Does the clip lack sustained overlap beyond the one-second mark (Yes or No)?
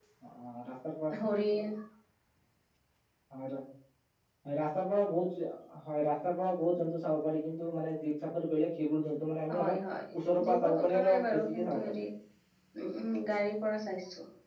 No